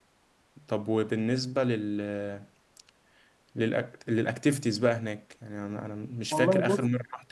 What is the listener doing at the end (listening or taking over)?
listening